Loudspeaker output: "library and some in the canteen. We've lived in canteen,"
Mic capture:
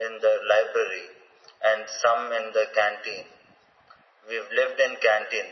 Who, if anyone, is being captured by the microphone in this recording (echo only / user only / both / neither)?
echo only